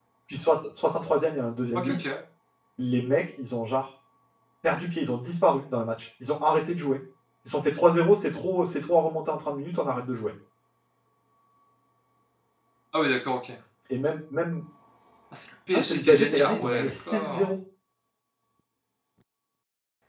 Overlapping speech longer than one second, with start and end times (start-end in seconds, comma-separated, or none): 15.7-17.5